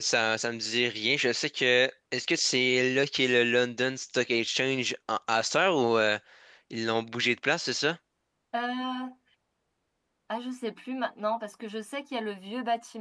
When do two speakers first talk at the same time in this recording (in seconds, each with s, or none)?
none